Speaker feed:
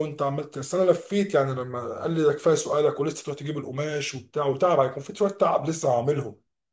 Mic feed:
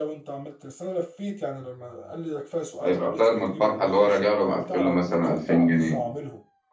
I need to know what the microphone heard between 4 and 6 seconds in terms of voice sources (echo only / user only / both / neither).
both